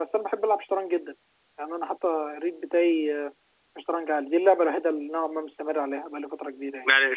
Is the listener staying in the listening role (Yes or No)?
No